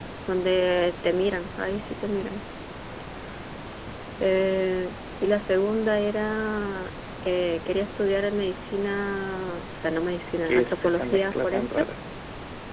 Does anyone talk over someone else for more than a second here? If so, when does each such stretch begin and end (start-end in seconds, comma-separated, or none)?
10.5-11.8